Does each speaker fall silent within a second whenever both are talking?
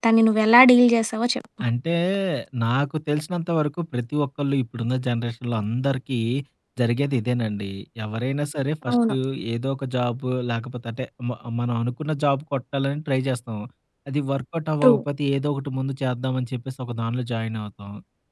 Yes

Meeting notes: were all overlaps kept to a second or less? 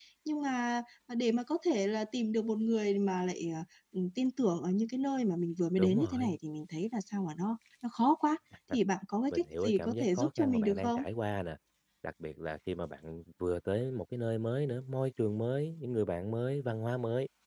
No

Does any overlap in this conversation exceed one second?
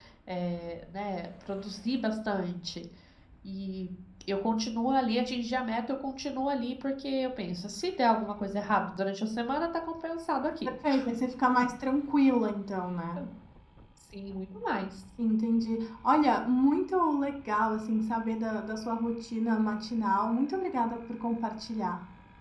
No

